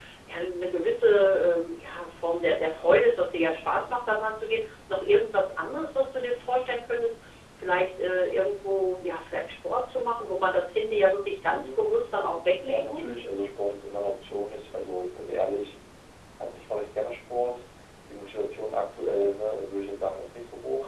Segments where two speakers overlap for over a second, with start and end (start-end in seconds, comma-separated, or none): 11.5-13.1